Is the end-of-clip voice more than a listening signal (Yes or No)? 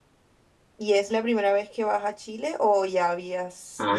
Yes